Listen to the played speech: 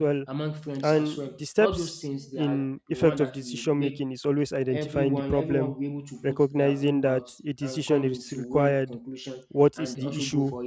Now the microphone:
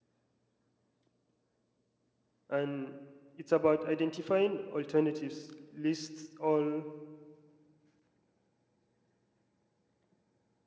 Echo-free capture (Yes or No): Yes